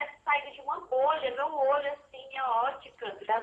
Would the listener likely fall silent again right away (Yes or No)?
Yes